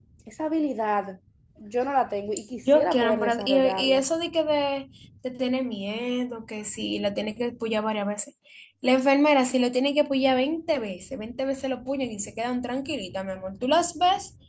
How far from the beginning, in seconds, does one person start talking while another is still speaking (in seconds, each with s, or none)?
2.7 s